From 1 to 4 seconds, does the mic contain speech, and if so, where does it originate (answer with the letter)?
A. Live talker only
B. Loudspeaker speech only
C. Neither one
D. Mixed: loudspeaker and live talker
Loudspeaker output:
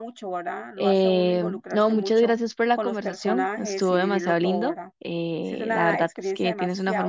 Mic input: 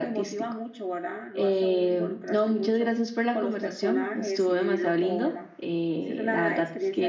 B